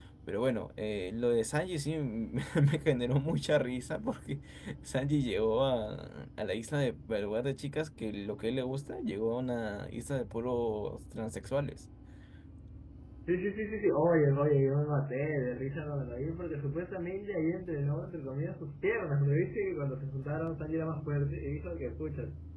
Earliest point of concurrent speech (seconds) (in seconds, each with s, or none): none